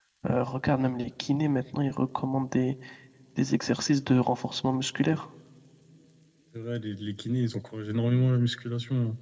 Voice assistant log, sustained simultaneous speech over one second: none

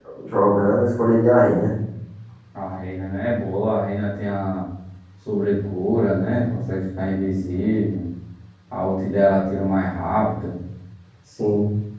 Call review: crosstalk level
none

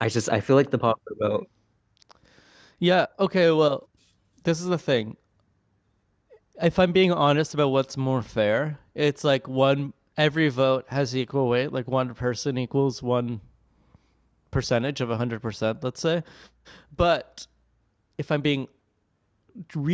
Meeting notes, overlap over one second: none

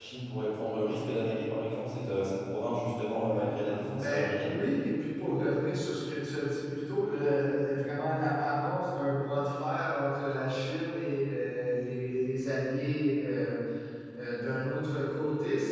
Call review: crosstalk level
present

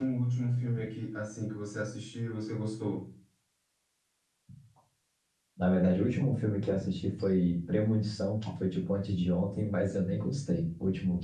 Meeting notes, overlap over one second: none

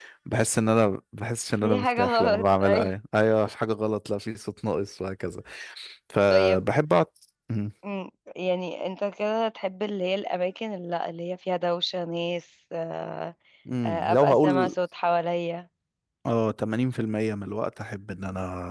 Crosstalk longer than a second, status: present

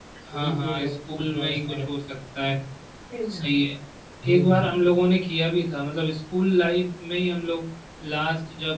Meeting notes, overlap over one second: present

